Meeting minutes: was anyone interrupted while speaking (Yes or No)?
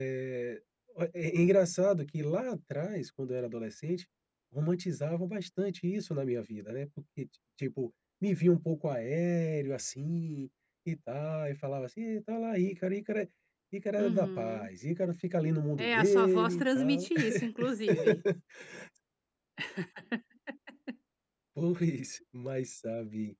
Yes